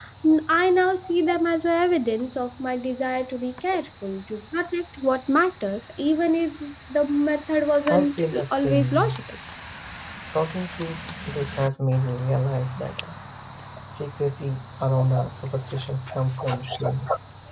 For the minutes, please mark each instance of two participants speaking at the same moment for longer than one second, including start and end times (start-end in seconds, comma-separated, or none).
7.9-9.1